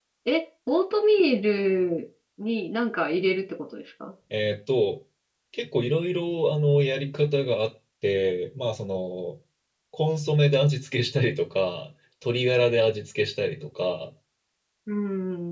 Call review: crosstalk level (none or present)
none